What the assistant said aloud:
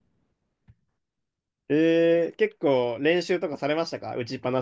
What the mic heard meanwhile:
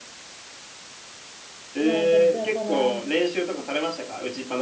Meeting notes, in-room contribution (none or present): present